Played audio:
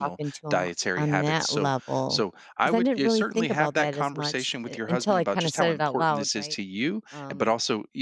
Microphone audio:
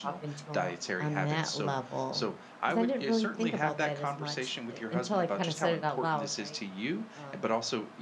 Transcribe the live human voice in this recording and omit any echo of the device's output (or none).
none